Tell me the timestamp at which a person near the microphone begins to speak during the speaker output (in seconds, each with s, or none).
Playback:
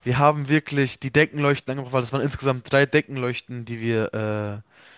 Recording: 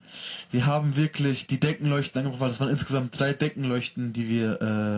none